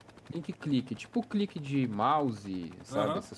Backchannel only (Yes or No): No